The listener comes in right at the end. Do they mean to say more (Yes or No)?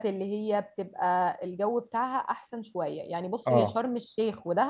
No